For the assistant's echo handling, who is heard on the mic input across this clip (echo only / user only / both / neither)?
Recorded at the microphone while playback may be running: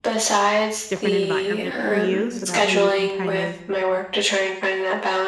both